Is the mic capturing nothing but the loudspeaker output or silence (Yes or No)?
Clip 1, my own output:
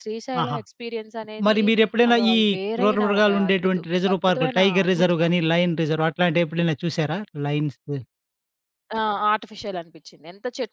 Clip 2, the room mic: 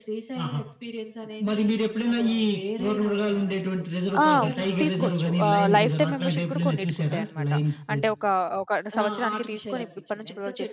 No